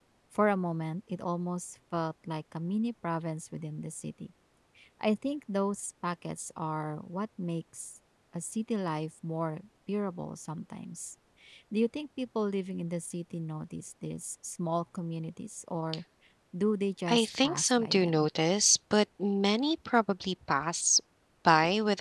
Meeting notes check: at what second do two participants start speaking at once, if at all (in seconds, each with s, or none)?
17.1 s